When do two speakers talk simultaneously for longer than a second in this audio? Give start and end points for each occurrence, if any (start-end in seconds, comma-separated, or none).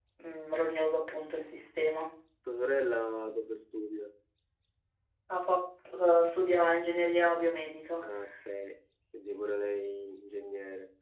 none